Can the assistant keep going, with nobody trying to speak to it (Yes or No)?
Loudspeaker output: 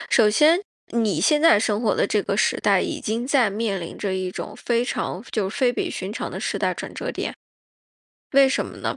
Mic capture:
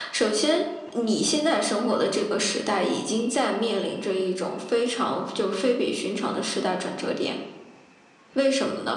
Yes